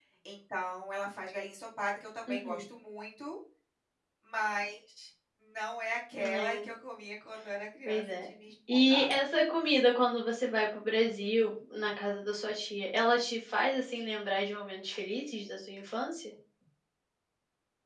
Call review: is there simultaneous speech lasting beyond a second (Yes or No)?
No